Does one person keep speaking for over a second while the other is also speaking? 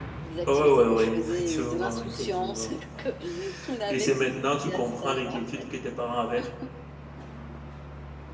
Yes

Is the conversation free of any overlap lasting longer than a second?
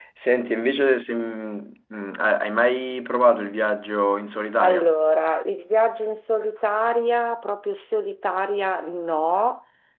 Yes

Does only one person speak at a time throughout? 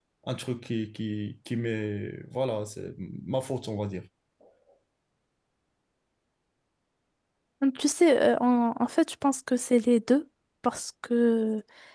Yes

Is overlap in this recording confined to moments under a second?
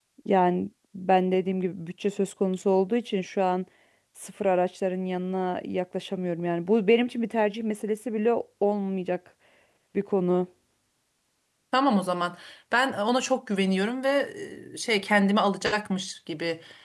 Yes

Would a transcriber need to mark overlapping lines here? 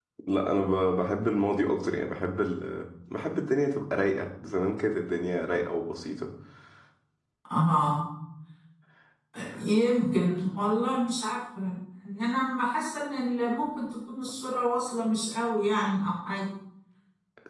No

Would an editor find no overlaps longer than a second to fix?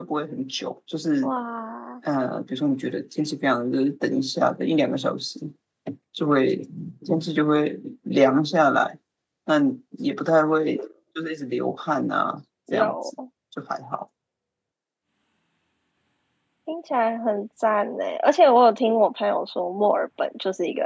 Yes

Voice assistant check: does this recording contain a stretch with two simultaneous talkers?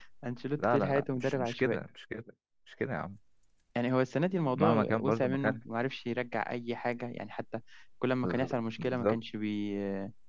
Yes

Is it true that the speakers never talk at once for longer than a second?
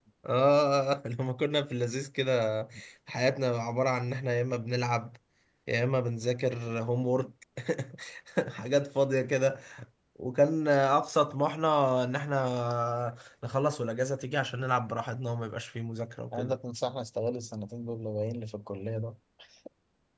Yes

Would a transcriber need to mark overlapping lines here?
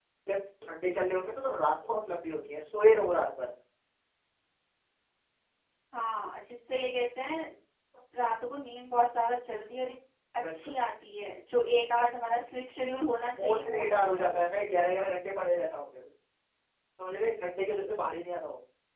Yes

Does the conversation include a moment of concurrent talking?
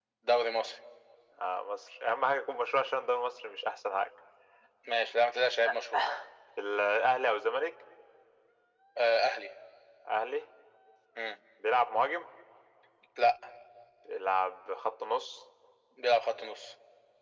No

